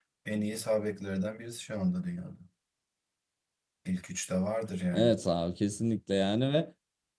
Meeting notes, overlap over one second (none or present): none